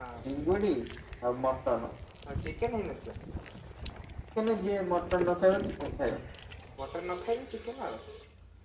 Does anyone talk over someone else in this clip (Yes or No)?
No